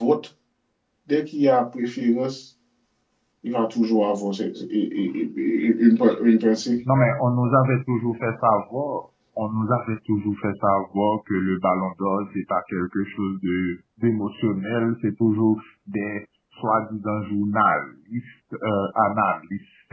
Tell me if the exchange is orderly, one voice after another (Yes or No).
Yes